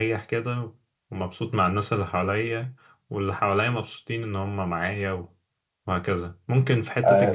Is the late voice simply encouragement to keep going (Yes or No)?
No